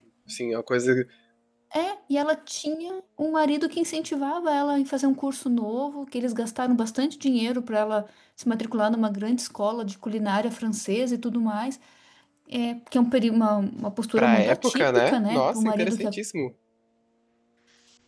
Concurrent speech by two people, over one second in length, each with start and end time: 14.2-16.1

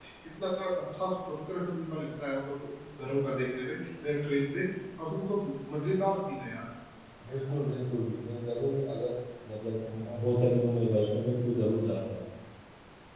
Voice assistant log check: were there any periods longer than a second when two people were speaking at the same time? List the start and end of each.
none

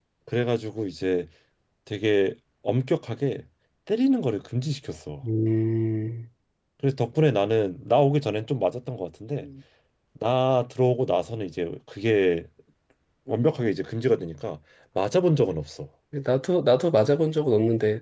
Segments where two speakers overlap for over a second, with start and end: none

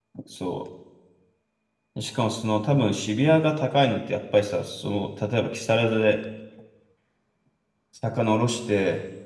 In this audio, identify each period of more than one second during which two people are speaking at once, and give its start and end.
none

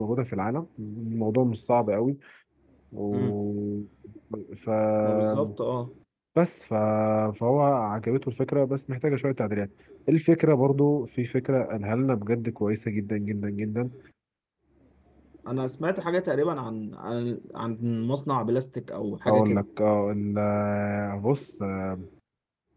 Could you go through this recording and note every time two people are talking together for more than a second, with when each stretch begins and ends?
none

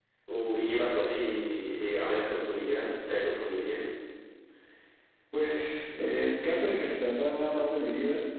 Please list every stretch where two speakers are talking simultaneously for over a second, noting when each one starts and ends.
none

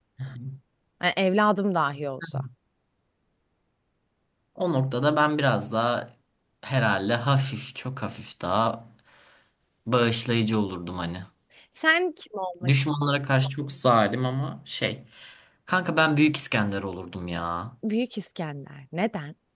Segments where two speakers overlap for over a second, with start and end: none

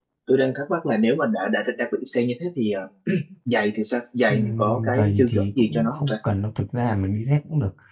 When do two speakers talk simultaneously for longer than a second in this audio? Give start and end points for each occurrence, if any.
4.3-6.1

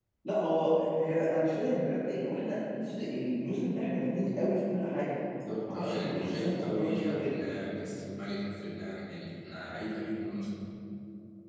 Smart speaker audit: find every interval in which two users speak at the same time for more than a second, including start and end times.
5.7-7.4

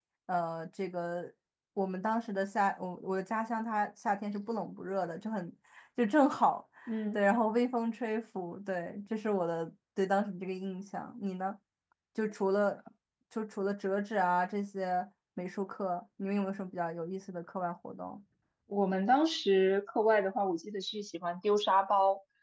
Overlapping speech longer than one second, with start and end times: none

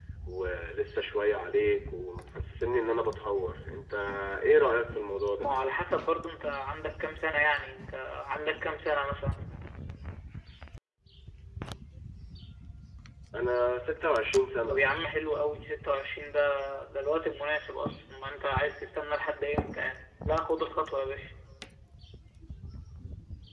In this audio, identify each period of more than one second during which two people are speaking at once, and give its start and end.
none

